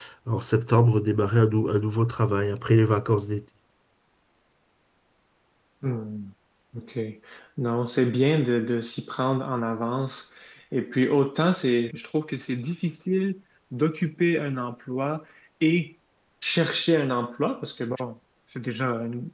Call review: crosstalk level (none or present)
none